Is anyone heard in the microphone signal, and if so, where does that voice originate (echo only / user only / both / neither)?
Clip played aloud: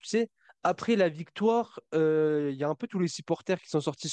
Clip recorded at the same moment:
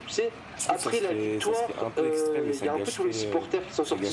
both